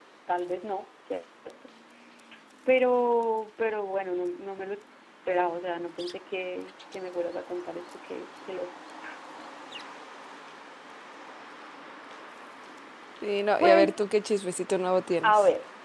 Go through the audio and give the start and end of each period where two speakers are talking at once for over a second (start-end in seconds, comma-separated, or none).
none